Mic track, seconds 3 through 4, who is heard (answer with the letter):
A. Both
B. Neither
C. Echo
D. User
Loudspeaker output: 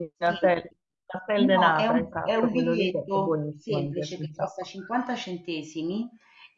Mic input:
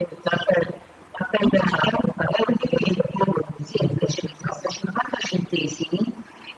C